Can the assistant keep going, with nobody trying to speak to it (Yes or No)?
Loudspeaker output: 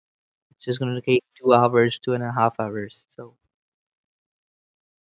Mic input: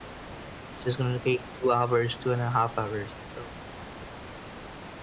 Yes